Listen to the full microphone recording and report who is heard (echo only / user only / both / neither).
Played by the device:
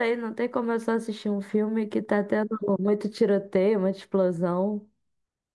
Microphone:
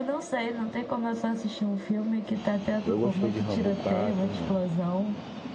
both